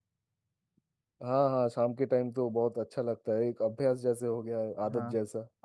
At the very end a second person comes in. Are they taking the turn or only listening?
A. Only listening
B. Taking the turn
B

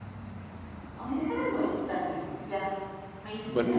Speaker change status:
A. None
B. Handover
B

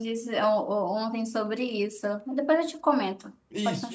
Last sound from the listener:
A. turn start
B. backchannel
A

